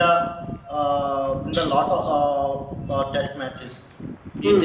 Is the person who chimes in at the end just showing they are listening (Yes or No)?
No